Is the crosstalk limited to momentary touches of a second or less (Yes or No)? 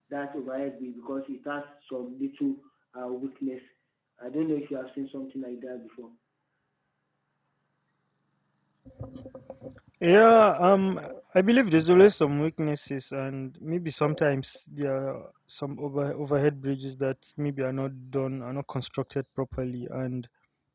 Yes